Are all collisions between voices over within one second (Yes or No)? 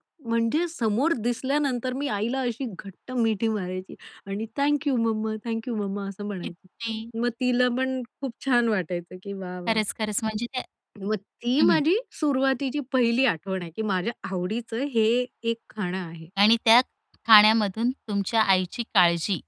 Yes